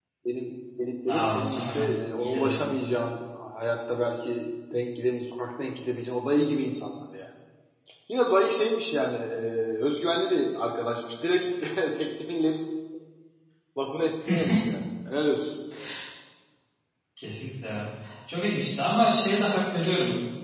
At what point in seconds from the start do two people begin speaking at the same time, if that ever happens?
1 s

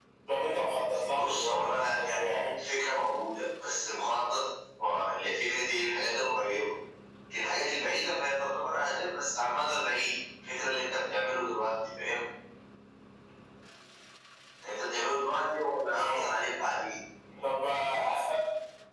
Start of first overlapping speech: 1 s

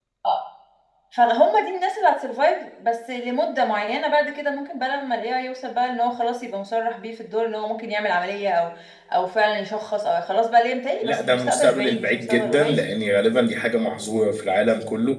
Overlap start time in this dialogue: 11 s

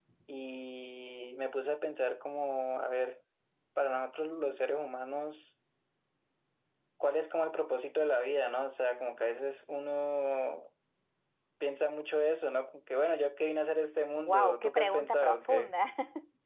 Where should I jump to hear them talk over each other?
14 s

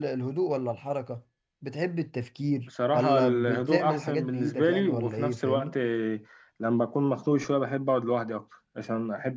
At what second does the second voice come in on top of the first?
3 s

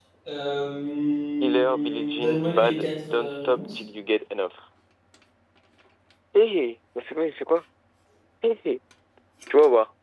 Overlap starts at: 1 s

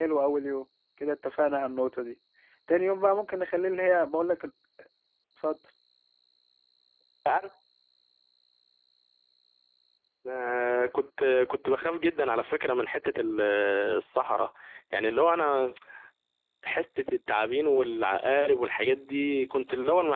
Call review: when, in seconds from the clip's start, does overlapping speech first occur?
none

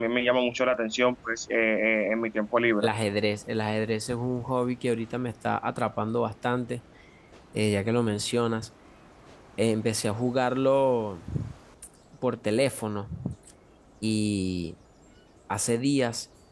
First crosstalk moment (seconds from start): none

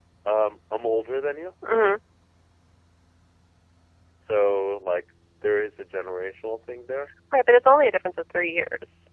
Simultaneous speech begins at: none

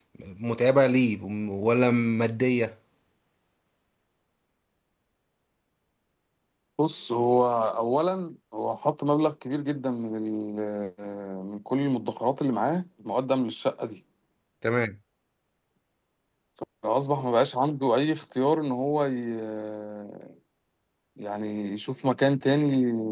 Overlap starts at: none

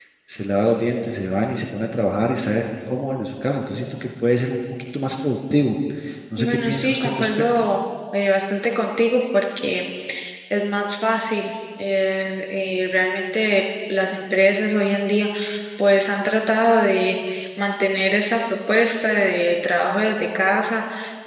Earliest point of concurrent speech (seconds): 6 s

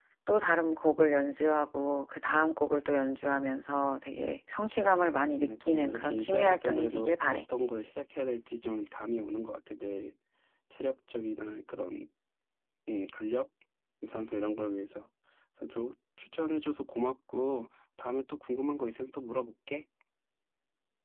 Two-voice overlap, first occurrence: 5 s

